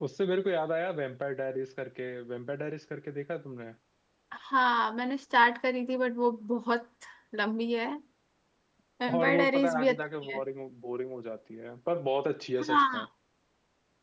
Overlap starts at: 9.1 s

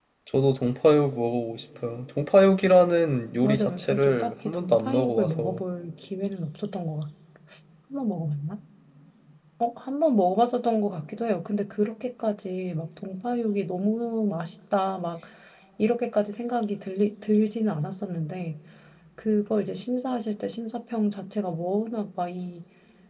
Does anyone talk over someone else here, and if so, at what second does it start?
3.4 s

